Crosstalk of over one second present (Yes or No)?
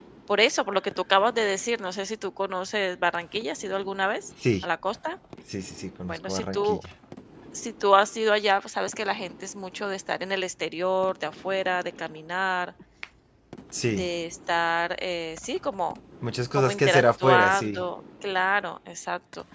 Yes